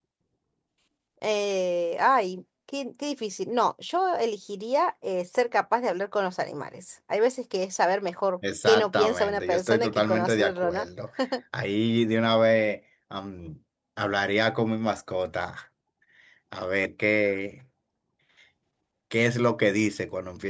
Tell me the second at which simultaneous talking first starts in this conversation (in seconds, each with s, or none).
8.4 s